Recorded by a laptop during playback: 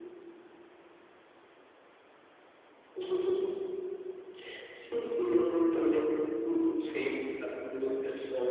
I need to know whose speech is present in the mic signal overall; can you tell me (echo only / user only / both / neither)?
echo only